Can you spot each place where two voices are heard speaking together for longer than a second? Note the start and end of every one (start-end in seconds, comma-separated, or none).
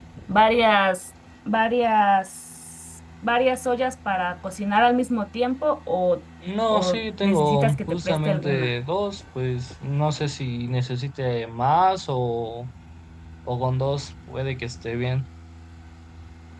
6.7-8.7